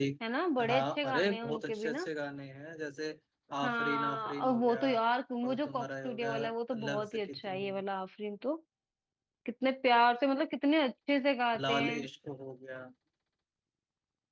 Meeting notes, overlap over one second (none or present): present